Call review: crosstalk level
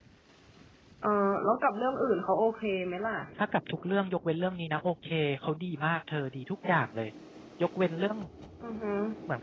none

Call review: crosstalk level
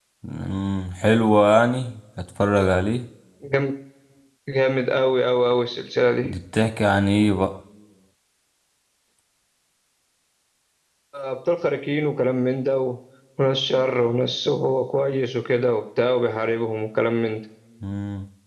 none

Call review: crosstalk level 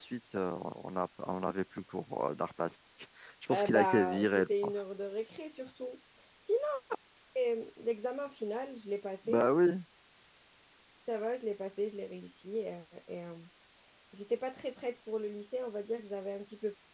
present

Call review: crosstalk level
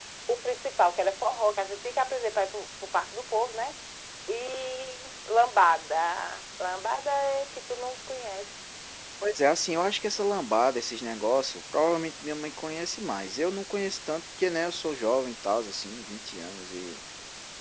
none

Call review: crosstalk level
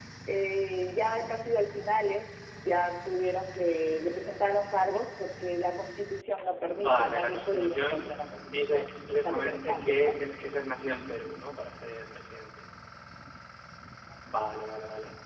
present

